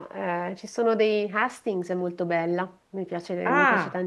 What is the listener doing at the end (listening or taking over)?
listening